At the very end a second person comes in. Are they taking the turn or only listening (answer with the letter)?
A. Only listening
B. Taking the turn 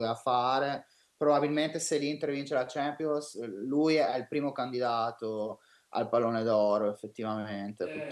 B